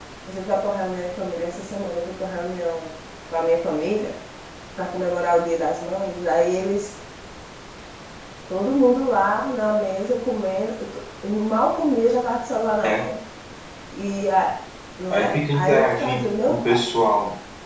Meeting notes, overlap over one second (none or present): present